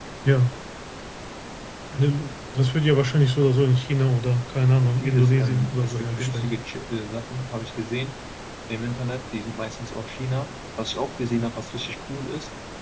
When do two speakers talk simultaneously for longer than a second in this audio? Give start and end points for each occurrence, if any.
4.8-6.5

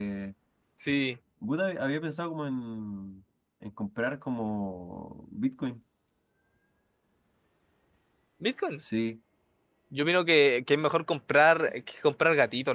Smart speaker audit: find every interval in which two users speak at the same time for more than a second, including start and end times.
none

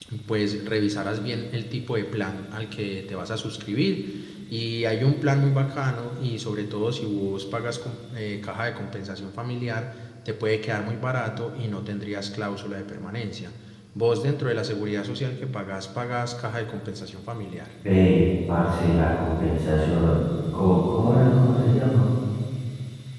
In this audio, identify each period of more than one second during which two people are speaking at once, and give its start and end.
none

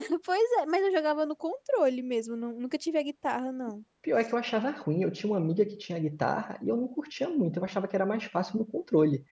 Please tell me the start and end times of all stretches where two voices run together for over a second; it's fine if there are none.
none

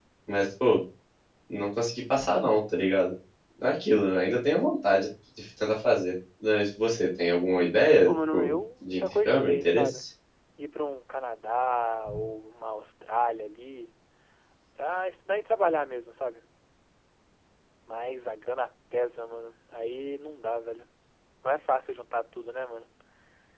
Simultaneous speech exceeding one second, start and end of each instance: 8.1-10.0

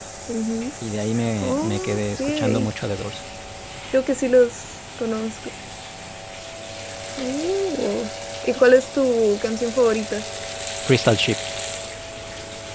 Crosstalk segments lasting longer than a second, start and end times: 1.4-2.7

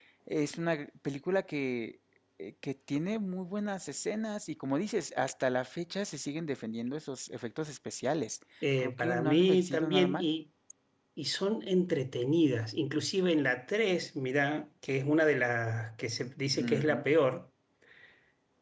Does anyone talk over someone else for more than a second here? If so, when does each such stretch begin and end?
8.8-10.3

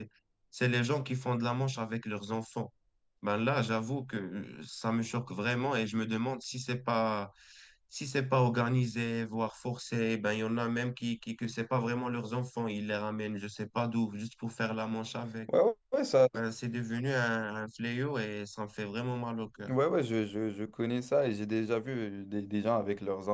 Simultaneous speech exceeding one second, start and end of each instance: none

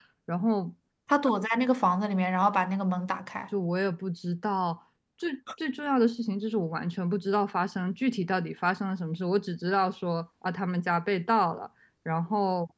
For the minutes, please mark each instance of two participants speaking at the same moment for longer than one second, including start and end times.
none

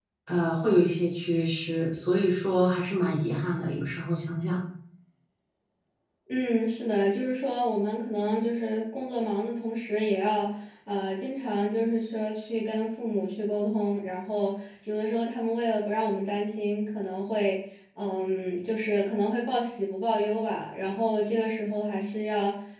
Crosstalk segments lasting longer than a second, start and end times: none

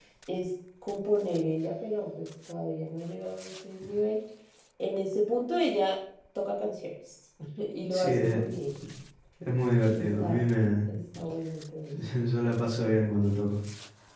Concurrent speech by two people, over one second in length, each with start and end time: none

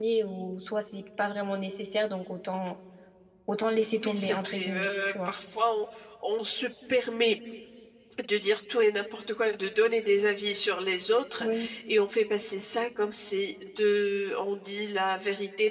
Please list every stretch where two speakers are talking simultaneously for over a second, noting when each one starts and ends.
3.9-5.3

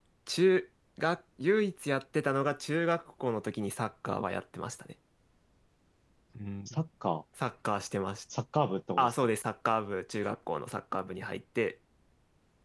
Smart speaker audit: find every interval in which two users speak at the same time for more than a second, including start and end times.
none

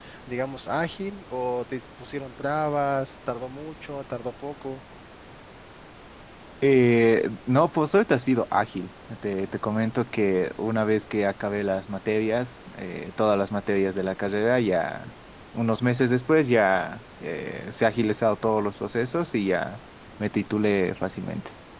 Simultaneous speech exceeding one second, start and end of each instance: none

